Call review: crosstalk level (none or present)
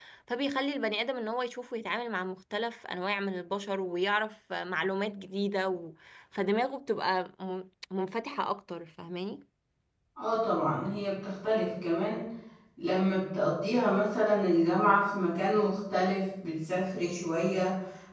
none